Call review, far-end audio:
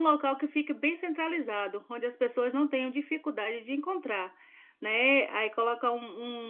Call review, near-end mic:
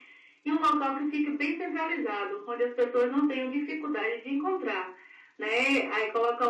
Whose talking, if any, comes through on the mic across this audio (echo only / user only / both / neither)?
echo only